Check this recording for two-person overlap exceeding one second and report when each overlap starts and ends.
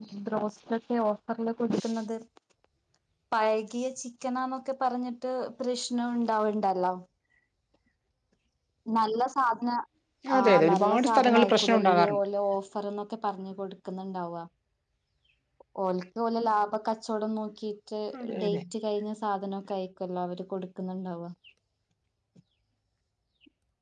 10.4-12.2

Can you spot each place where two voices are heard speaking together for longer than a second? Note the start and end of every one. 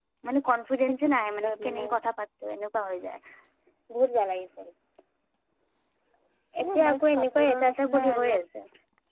6.6-8.3

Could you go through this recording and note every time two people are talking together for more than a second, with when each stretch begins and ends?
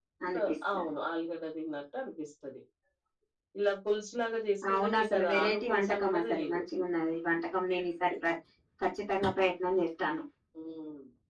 4.7-6.6

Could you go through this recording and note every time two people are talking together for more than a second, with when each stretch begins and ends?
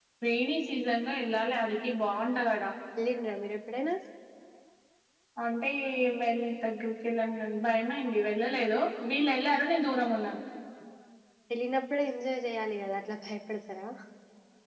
none

